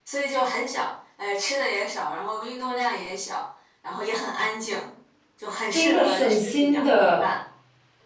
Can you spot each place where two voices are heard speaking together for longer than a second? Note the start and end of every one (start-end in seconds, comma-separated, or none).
5.7-7.2